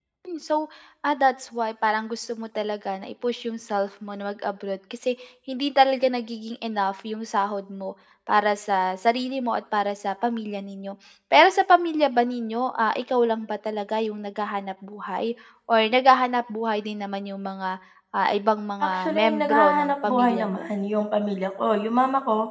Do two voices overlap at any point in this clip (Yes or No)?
Yes